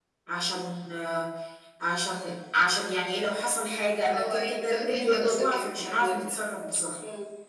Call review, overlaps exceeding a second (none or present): present